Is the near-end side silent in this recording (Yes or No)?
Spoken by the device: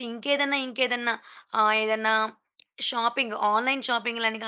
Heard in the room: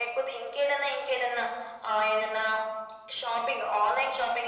Yes